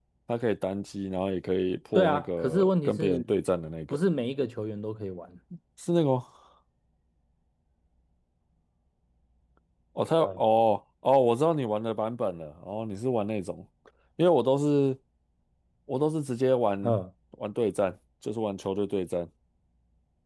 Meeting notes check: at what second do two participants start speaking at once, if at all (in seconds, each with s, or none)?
1.9 s